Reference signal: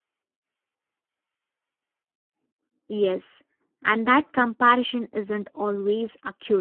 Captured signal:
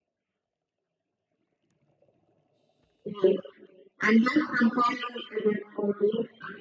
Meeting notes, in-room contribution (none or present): none